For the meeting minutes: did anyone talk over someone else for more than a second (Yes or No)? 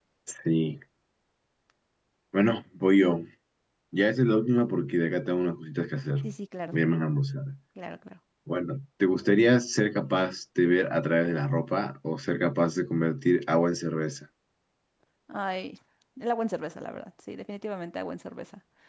No